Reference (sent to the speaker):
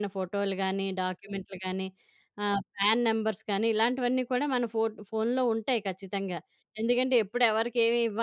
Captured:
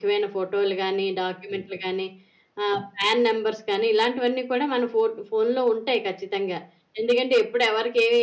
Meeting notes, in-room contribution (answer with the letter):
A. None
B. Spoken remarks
A